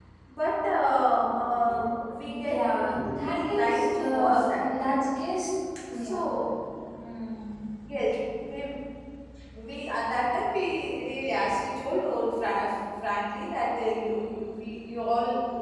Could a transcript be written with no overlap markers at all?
No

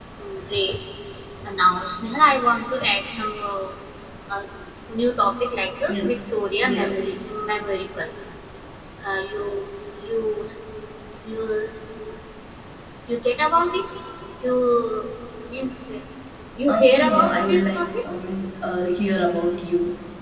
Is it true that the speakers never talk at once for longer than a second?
No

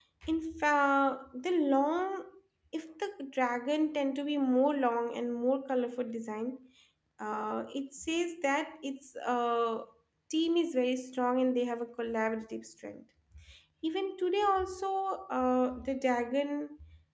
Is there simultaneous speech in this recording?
No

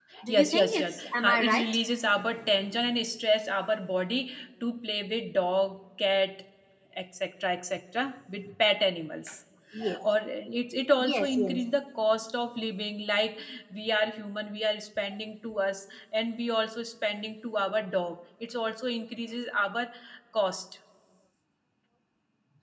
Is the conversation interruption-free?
No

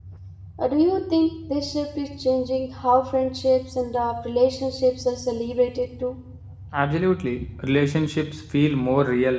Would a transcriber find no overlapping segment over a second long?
Yes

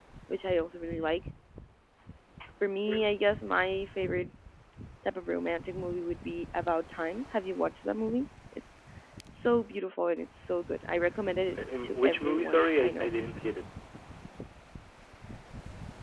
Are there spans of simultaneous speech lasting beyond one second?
Yes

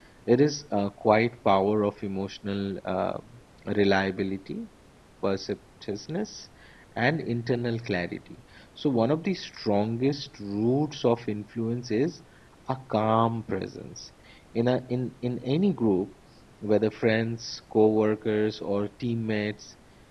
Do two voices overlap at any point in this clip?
No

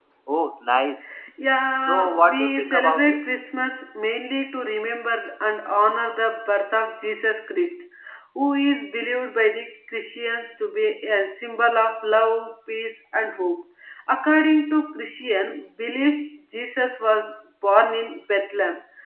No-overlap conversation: No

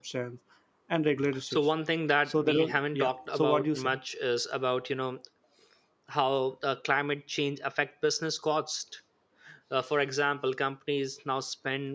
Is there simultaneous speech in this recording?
Yes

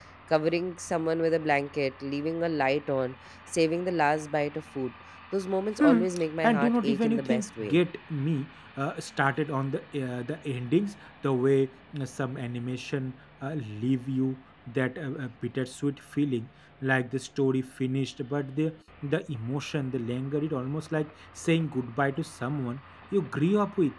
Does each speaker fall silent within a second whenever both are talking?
No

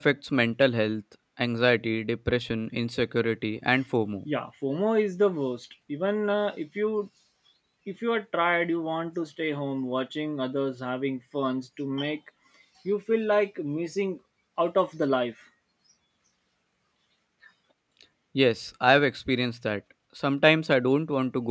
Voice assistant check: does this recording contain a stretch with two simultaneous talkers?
No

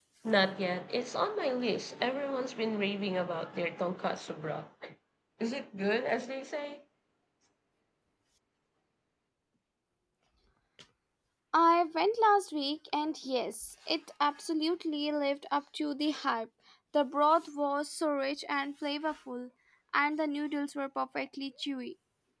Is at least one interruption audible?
No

